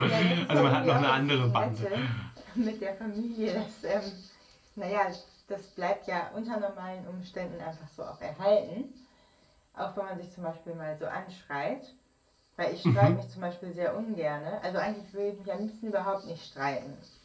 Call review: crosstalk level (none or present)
present